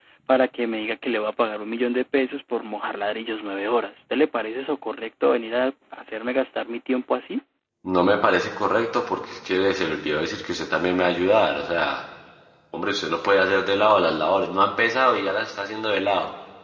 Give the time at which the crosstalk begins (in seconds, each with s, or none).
none